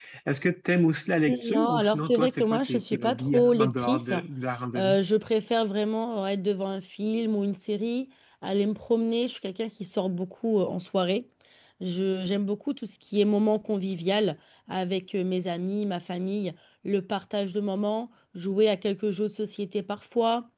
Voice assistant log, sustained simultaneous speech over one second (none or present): present